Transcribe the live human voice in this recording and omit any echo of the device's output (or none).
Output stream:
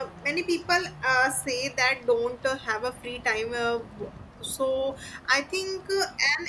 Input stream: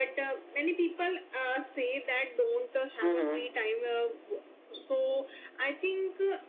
Mhm.